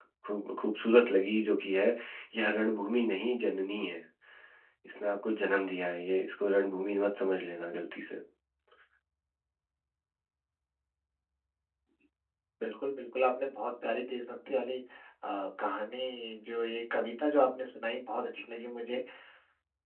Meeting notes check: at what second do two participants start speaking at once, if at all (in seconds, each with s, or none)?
none